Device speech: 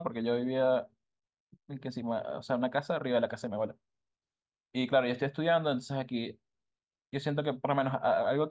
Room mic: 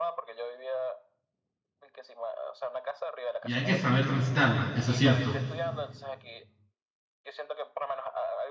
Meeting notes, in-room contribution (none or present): present